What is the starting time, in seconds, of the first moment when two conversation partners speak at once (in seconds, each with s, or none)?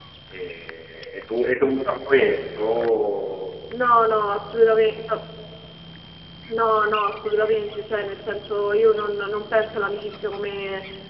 none